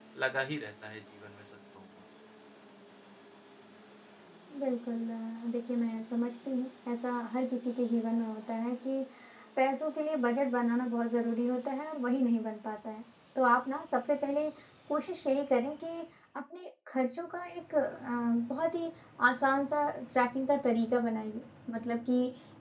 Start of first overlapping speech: none

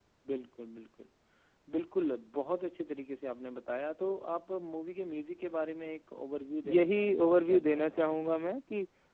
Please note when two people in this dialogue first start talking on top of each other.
6.6 s

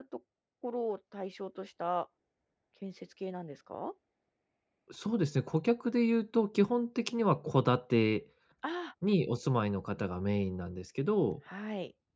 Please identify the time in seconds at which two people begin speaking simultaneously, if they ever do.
none

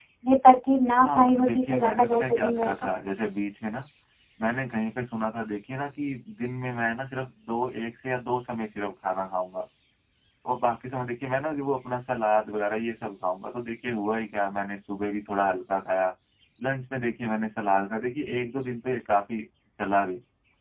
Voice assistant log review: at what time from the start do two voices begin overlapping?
1.0 s

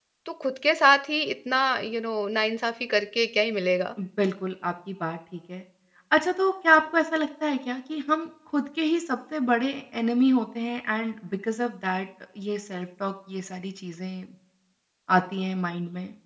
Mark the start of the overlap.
none

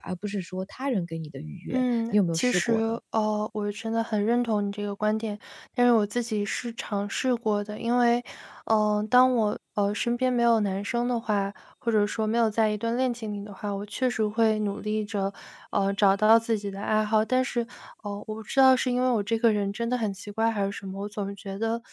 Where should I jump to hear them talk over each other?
1.7 s

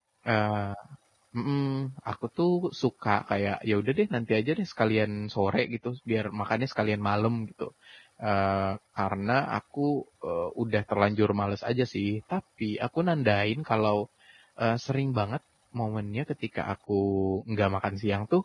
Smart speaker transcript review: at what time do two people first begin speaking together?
none

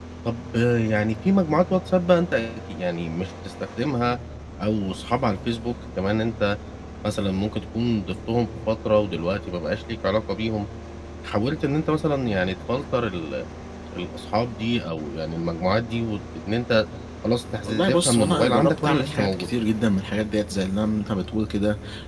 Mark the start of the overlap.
17.6 s

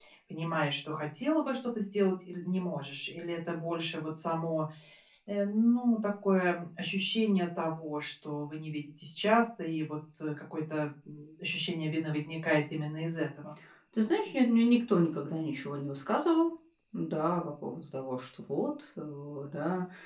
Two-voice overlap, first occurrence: none

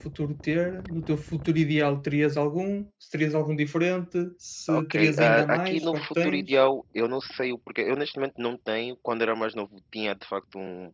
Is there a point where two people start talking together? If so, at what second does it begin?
4.7 s

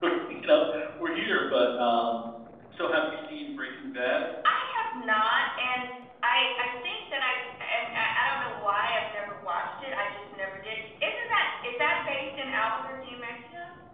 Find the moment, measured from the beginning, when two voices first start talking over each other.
none

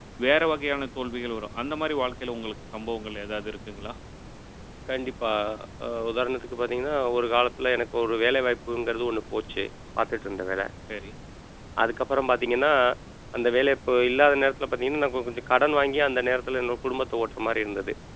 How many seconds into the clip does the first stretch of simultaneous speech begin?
none

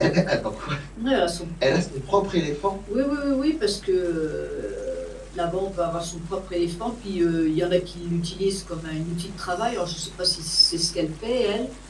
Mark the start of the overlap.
none

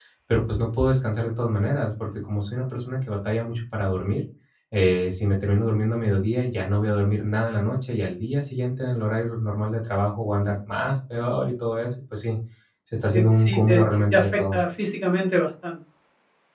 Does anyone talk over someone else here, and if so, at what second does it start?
13.1 s

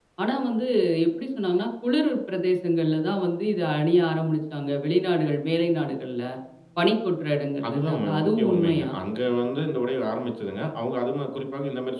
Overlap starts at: 7.7 s

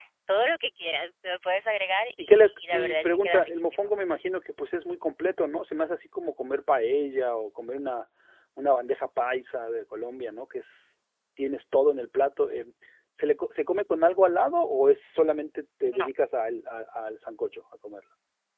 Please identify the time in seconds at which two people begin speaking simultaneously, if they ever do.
2.2 s

